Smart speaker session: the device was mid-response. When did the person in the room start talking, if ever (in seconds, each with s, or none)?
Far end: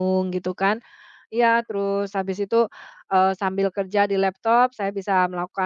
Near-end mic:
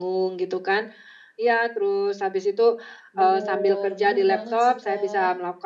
3.2 s